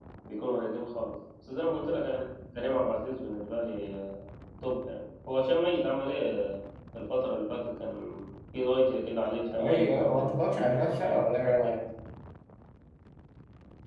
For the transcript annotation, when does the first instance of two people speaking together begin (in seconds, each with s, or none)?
9.5 s